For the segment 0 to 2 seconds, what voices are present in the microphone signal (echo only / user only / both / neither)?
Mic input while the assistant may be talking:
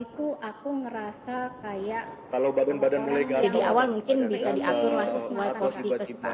echo only